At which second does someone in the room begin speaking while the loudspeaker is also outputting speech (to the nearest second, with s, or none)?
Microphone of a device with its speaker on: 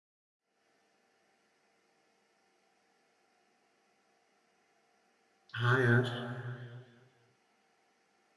6 s